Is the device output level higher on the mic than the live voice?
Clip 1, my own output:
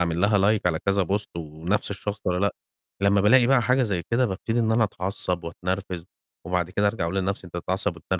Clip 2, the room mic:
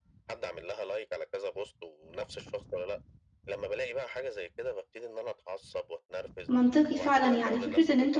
No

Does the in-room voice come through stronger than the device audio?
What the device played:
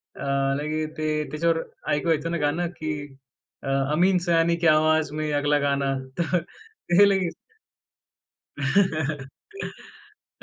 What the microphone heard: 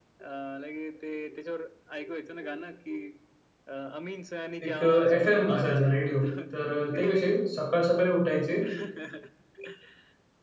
Yes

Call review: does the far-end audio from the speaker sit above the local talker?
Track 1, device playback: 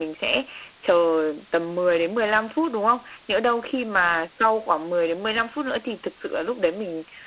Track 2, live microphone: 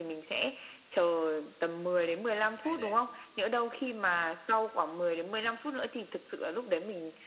Yes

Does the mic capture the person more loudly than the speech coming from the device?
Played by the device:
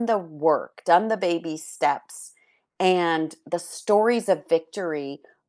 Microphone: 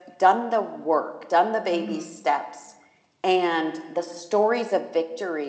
No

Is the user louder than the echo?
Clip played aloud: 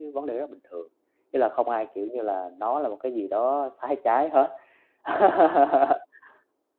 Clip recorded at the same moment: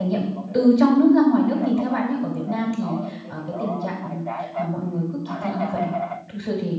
Yes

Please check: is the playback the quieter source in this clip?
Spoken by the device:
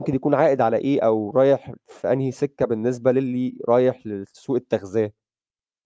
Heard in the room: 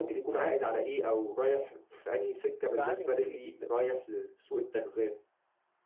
No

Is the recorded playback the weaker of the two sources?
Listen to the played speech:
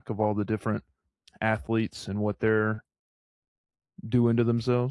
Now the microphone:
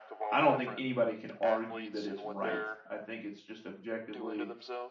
Yes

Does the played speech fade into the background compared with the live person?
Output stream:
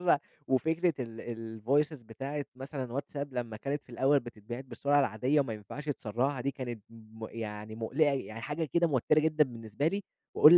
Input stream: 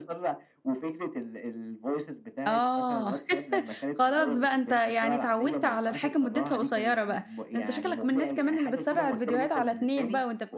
Yes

